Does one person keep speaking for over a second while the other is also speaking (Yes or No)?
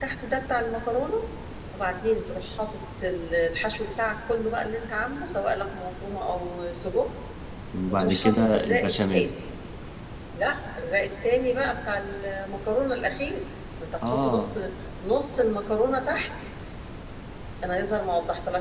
Yes